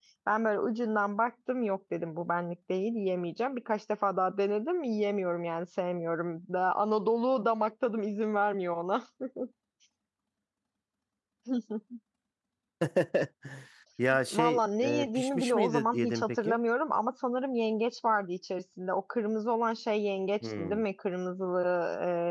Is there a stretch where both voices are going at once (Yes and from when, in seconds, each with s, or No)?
Yes, from 14.3 s